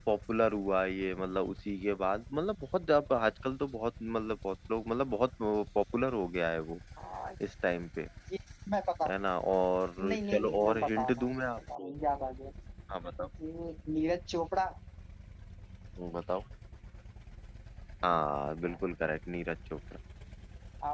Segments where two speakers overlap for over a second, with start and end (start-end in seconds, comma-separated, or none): 10.1-11.9